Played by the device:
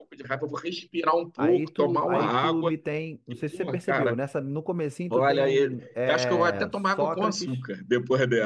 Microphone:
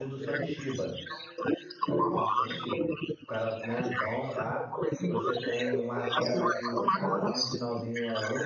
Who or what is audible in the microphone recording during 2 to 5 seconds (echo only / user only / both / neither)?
both